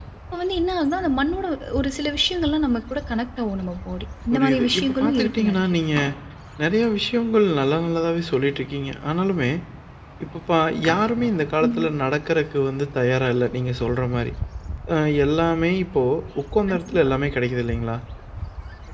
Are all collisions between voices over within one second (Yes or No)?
No